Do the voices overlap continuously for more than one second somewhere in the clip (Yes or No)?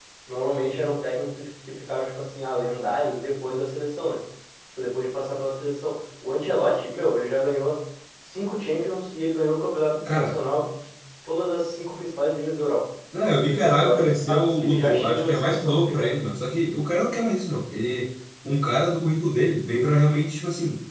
Yes